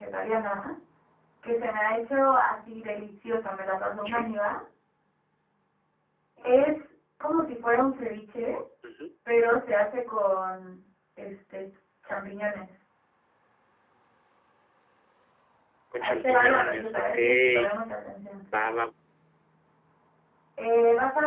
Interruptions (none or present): present